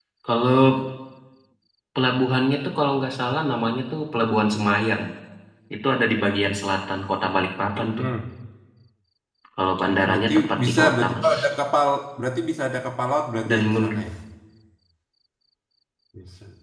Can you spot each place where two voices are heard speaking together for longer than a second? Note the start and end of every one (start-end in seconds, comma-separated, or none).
10.1-11.3